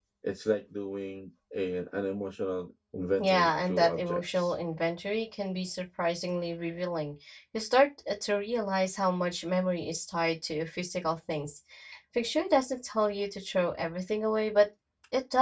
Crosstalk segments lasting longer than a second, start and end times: 3.2-4.5

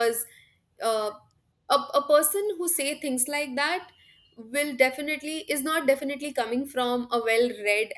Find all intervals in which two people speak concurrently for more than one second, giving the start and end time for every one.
none

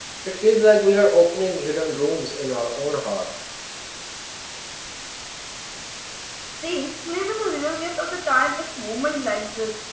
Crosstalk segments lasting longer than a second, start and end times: none

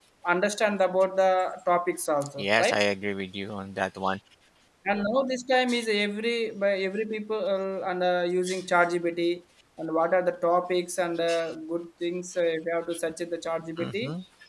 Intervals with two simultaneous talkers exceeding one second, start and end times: none

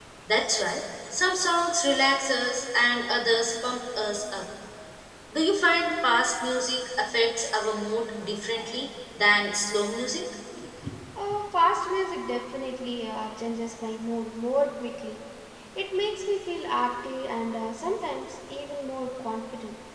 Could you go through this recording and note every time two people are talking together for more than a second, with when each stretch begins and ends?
none

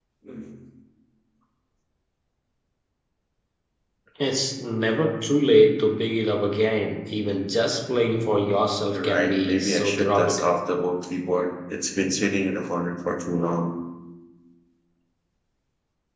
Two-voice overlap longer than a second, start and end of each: 8.9-10.4

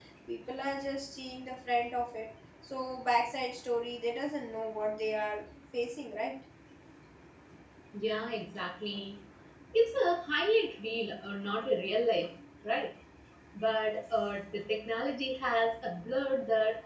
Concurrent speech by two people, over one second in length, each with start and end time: none

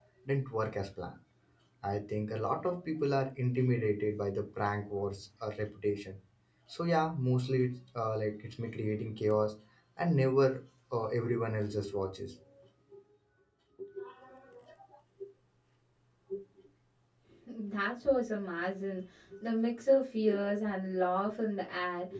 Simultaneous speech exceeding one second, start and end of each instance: none

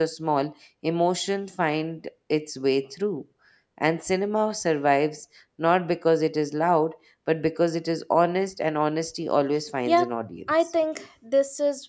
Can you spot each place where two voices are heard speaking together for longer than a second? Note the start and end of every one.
none

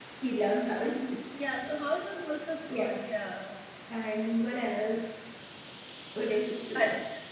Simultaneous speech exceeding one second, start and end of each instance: none

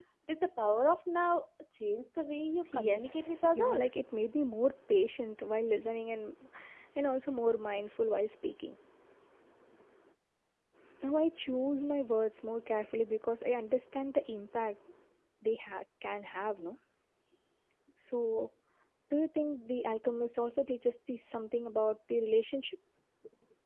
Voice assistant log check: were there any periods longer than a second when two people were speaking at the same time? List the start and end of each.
2.7-4.0

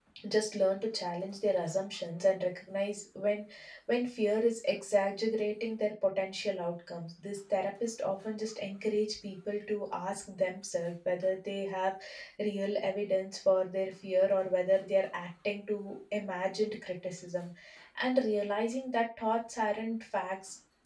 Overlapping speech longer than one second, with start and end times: none

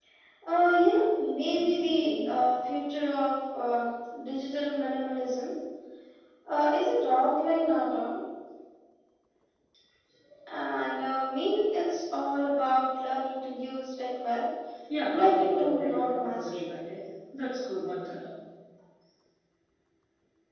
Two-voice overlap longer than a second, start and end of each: 15.1-16.6

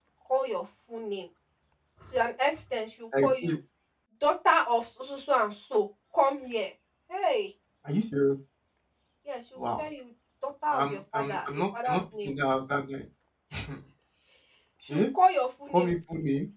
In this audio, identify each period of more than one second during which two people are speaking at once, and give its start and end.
10.7-12.3

